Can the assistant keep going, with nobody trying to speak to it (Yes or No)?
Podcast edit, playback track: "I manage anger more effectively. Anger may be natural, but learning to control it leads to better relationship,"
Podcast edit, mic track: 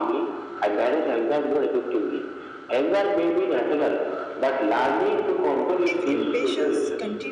No